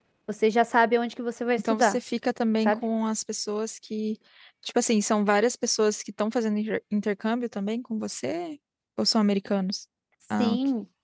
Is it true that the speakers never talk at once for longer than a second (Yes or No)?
Yes